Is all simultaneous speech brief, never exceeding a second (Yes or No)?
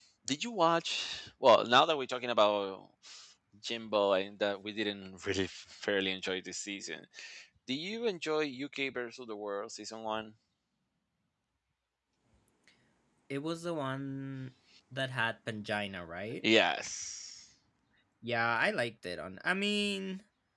Yes